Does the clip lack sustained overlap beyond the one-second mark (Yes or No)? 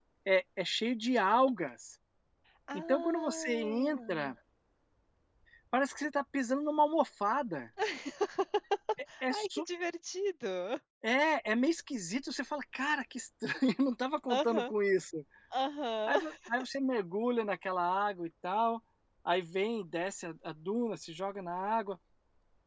No